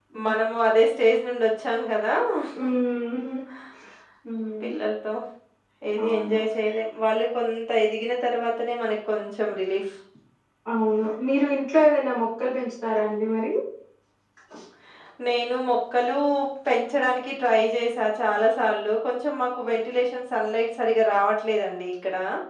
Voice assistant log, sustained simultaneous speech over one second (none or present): none